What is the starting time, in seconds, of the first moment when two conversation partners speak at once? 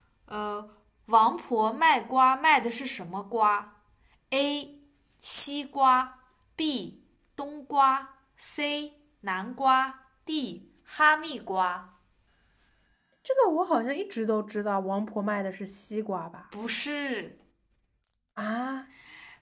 none

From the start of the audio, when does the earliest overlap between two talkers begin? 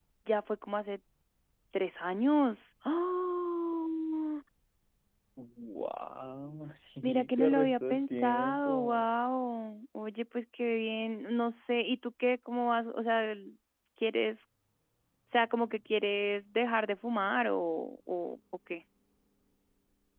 7 s

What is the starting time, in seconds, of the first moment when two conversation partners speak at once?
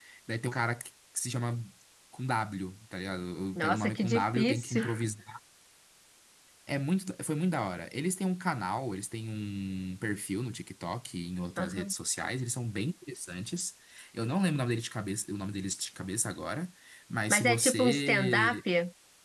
4 s

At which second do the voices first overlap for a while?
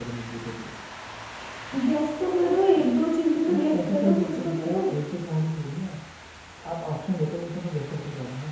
3 s

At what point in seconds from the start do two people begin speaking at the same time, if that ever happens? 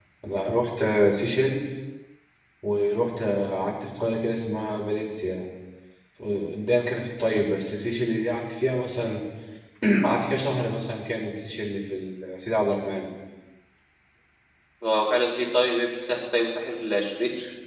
none

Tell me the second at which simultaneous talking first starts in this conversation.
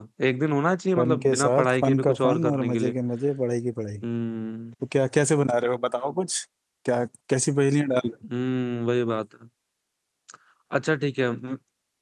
1 s

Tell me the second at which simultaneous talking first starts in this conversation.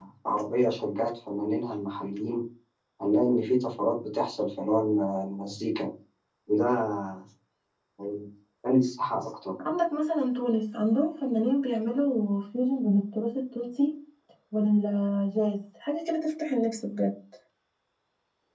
none

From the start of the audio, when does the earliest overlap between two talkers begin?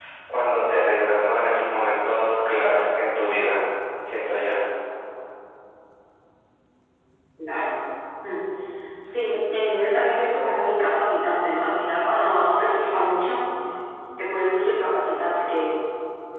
none

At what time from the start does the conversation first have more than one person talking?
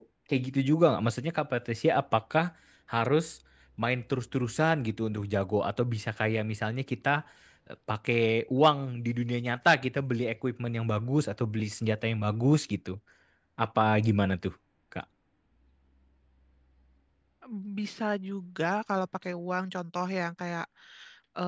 none

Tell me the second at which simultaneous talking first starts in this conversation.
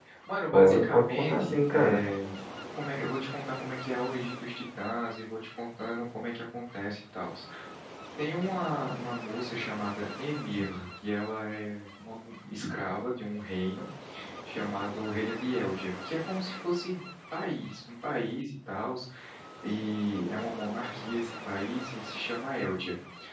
1 s

